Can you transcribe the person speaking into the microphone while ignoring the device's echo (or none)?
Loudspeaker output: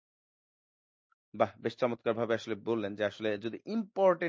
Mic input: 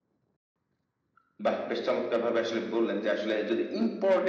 none